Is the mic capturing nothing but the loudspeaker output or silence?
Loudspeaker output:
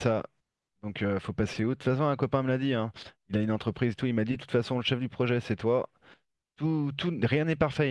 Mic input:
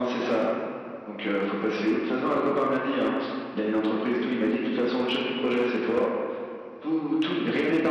Yes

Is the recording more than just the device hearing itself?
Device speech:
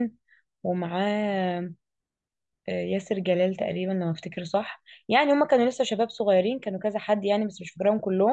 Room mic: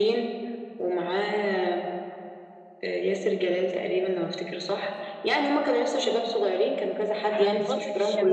Yes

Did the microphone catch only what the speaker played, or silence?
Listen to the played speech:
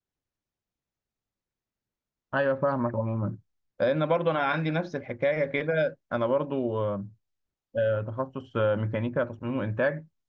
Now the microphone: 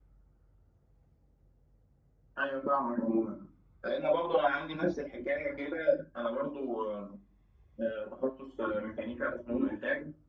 Yes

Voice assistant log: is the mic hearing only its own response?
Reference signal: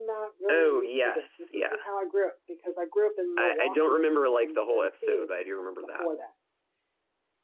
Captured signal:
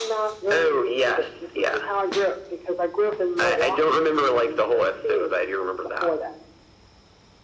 Yes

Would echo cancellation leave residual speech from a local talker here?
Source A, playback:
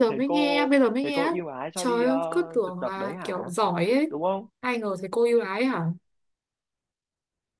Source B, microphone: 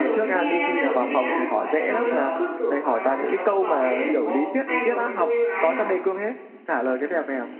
Yes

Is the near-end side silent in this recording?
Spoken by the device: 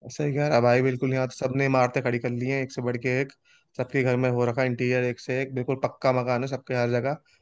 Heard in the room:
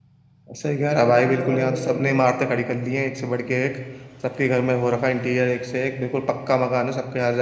No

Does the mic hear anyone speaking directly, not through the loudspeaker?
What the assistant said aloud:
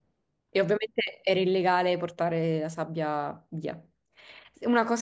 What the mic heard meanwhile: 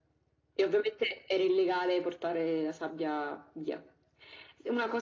No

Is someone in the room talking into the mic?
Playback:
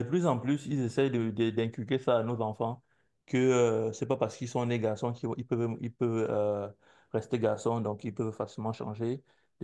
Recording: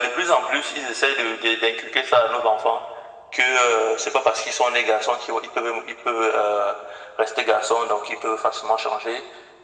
No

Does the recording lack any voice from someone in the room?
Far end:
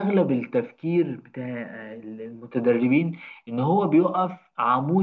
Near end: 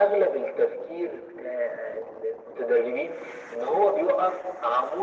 Yes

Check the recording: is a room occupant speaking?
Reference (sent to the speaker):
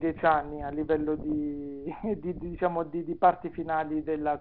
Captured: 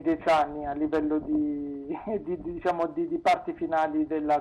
No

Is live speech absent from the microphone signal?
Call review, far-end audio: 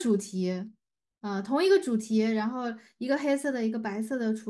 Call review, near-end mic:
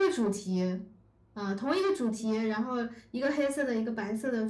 Yes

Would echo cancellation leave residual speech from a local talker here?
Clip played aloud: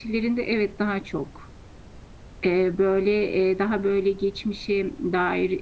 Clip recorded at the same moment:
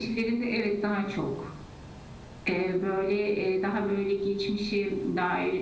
No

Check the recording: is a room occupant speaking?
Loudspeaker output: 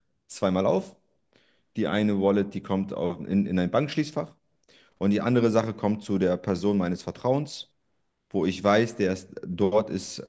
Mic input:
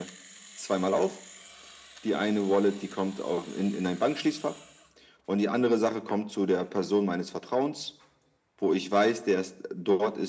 No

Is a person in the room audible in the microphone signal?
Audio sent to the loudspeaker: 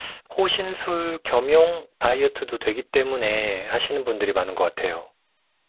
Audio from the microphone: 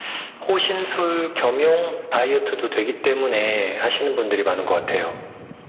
No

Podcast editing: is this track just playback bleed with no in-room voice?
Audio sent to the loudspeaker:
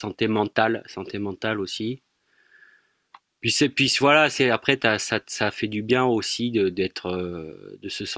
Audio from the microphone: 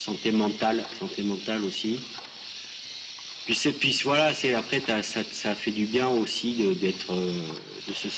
Yes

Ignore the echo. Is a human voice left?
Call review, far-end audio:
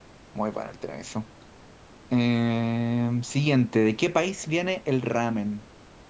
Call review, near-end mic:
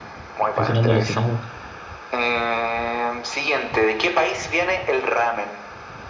Yes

